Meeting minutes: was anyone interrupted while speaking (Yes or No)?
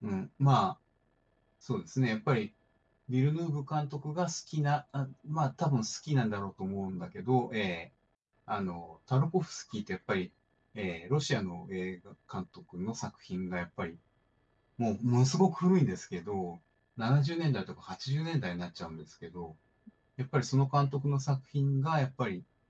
No